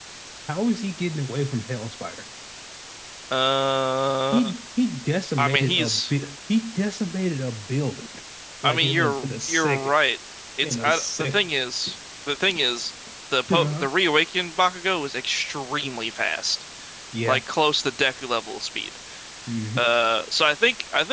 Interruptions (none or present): present